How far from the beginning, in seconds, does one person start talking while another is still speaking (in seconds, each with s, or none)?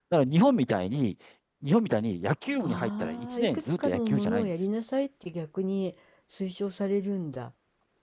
2.6 s